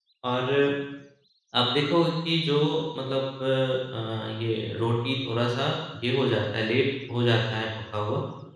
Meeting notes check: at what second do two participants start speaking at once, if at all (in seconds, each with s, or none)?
none